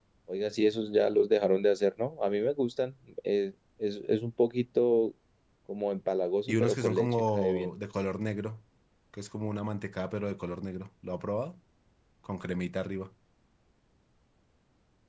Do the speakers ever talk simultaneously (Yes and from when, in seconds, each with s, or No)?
Yes, from 6.5 s